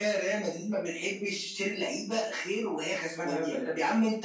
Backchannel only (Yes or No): Yes